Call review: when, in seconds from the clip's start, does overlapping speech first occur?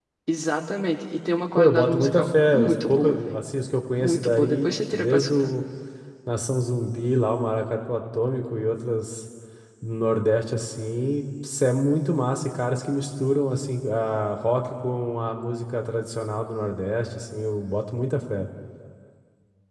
1.6 s

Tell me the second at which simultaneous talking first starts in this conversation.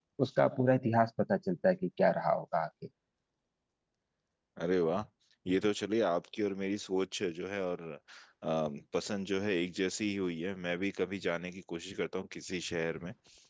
none

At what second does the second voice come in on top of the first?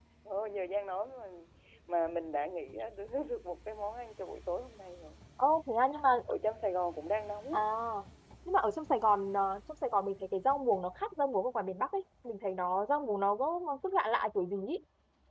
none

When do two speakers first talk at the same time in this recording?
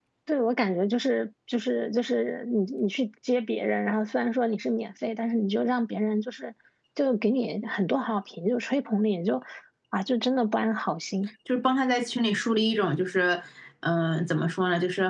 none

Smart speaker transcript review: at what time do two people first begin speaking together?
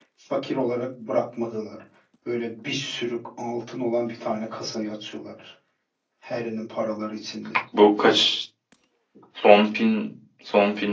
none

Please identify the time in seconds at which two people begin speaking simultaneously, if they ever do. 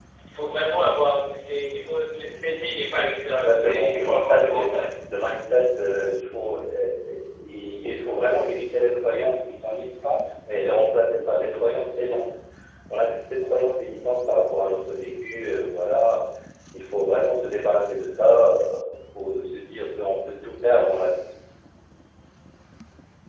3.3 s

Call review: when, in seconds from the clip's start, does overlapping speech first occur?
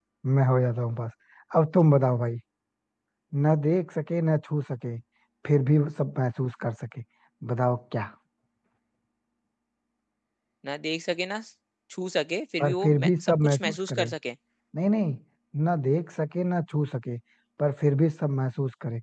12.6 s

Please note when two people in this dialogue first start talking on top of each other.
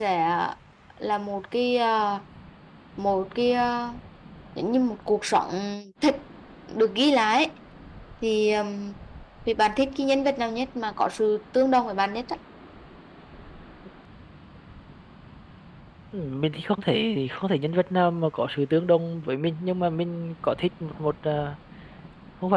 none

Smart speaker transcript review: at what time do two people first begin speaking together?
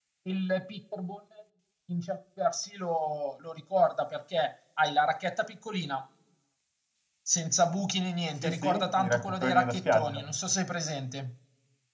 8.4 s

